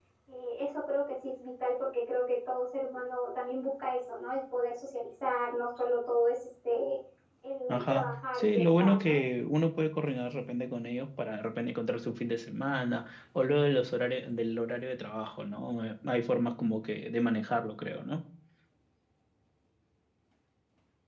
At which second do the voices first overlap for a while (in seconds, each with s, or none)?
7.7 s